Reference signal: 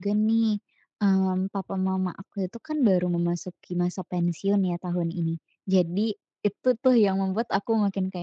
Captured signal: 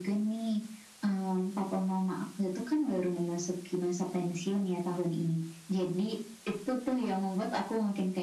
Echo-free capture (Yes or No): No